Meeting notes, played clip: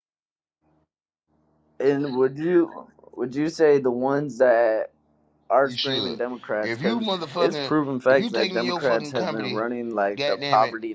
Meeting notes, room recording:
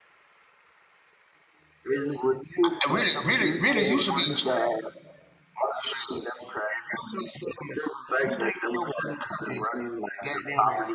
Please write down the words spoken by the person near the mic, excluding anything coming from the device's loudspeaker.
I- Really, really, really, you should be.

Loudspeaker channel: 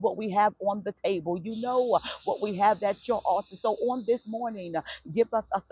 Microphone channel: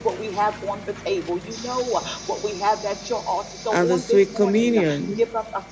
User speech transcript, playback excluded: and the sweet communion

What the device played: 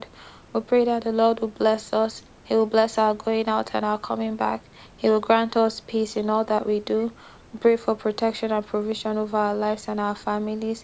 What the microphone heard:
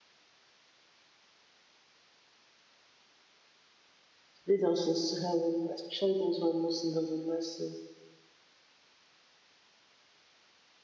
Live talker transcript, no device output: Lead us to heaven, especially those who are most in need of mercy.

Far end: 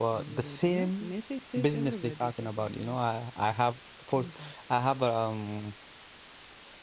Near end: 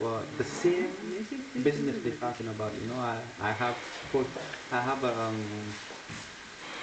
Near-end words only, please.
none

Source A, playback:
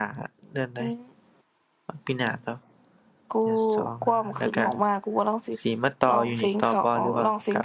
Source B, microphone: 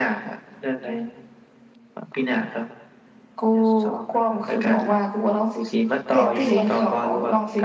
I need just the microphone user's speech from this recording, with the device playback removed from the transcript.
เอทูอะ

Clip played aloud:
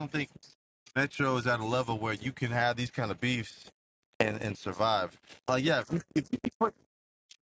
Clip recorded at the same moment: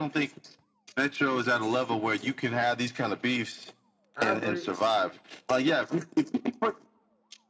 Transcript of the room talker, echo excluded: I agree.

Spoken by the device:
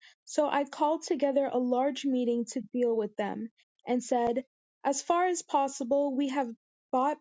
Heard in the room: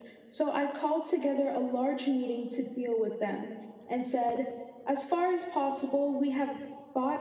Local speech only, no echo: none

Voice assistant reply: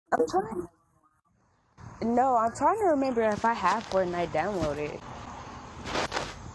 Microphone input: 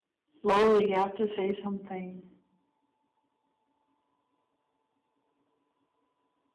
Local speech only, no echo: Lola, you have to say something.

